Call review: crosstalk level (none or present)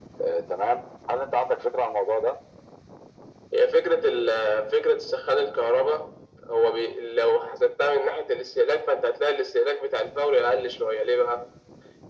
none